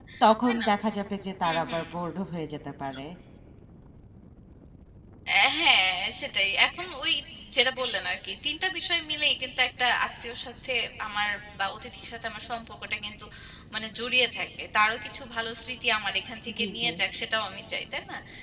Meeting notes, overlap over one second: none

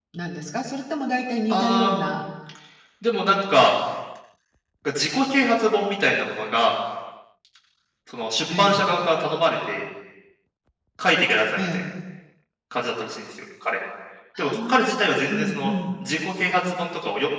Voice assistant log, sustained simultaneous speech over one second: present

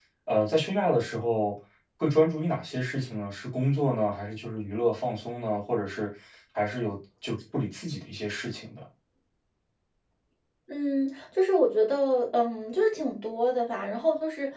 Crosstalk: none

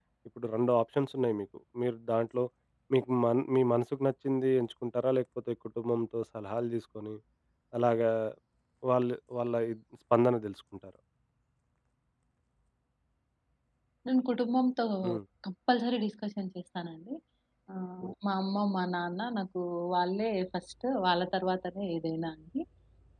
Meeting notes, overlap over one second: none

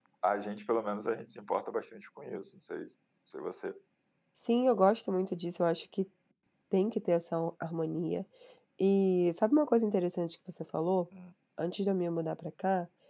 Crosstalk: none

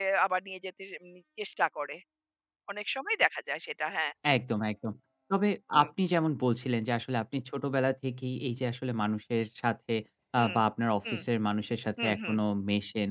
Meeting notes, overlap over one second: none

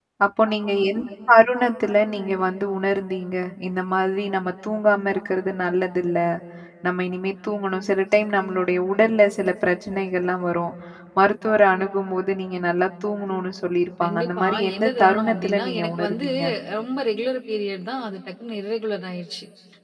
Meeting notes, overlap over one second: present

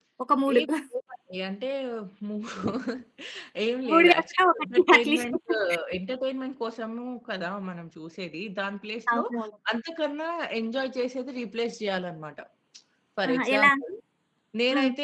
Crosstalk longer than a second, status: present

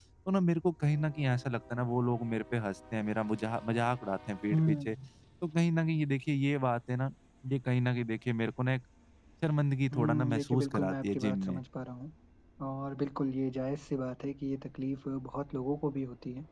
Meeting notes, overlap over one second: present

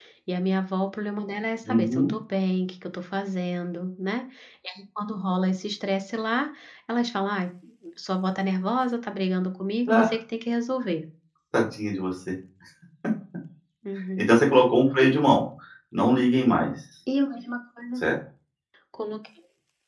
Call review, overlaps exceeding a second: none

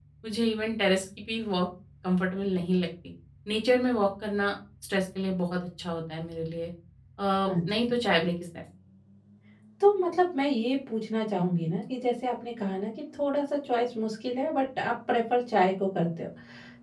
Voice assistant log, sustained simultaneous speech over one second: none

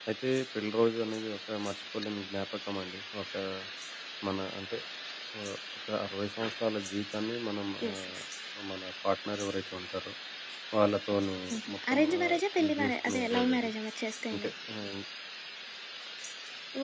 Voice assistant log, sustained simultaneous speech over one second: present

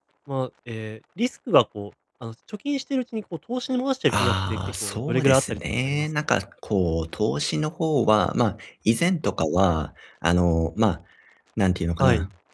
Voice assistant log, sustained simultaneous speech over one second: present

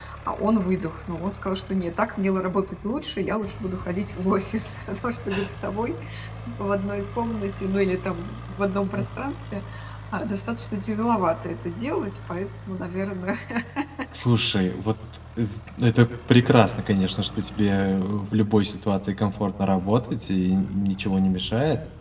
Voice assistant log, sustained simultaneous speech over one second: none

